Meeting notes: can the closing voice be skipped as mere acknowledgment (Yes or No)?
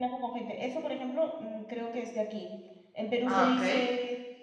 Yes